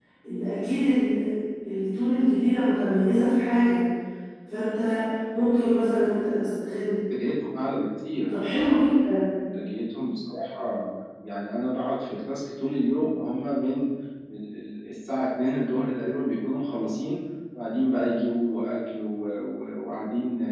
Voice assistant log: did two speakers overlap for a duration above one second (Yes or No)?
No